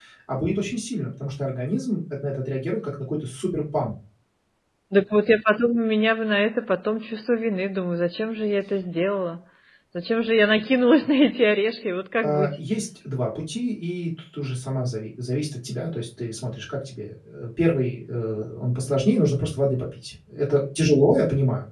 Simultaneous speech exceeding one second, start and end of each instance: none

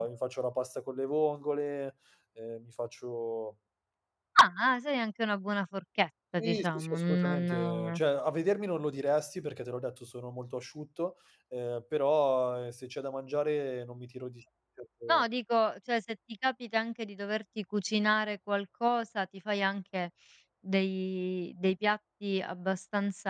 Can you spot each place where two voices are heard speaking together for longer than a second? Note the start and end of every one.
6.4-8.0

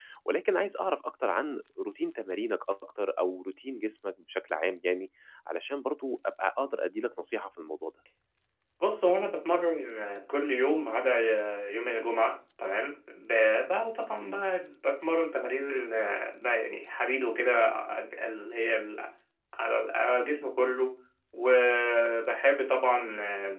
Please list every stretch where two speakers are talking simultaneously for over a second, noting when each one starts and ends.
none

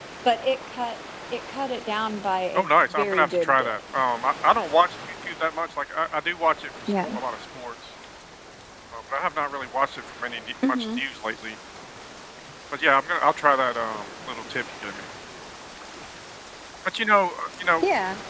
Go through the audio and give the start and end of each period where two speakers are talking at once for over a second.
2.5-3.8

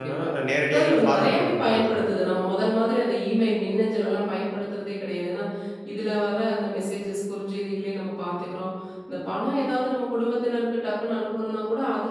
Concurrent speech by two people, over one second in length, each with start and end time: 0.7-1.9

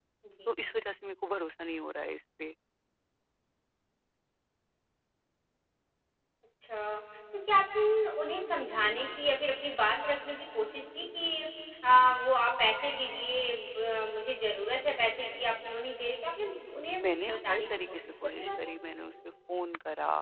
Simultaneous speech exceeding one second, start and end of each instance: 17.0-18.5

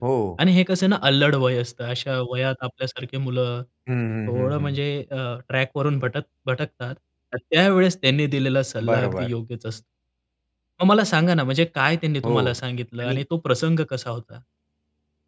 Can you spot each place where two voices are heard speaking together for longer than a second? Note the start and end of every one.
none

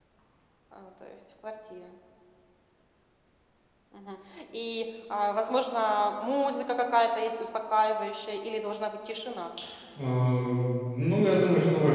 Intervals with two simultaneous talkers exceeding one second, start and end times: none

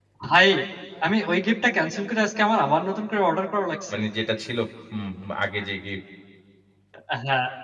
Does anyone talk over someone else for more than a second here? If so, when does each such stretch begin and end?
none

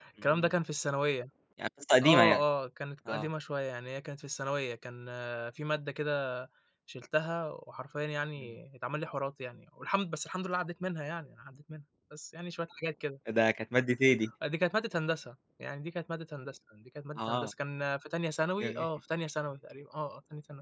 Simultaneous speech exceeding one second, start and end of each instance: none

